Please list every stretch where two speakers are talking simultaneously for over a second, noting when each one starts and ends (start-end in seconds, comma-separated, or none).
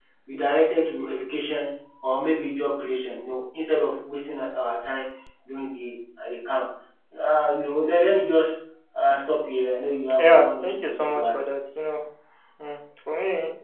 10.2-11.4